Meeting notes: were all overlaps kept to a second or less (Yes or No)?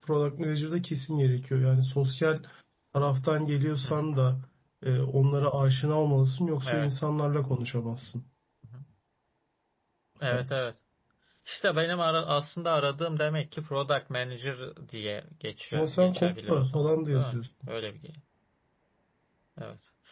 No